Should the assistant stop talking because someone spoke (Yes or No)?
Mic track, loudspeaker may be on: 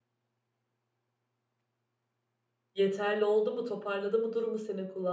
Yes